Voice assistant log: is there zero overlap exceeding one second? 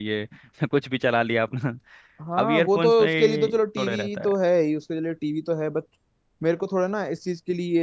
No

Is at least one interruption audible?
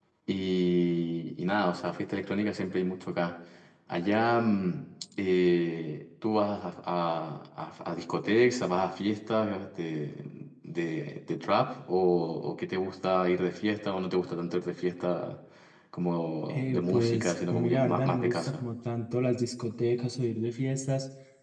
Yes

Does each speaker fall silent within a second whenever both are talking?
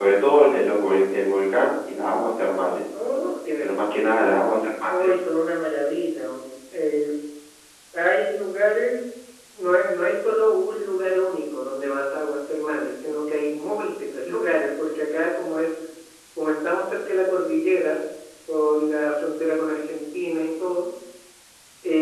Yes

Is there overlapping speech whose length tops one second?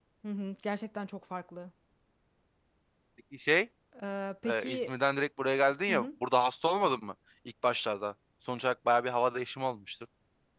No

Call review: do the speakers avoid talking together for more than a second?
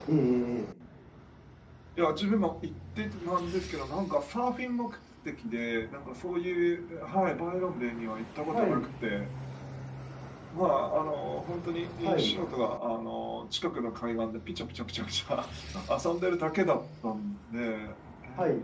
Yes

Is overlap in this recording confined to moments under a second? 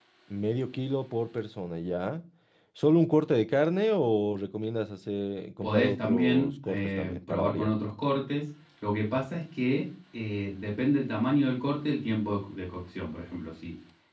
No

